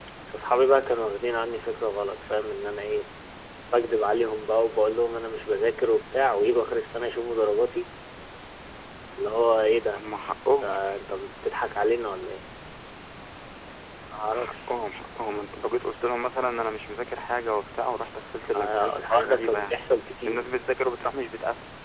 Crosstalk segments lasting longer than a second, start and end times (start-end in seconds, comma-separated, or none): 18.6-19.8